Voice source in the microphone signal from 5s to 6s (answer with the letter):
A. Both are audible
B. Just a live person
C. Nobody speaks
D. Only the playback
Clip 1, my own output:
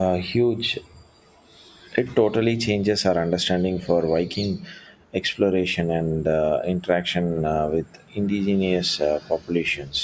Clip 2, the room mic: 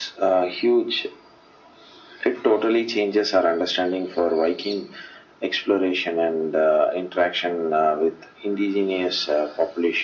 D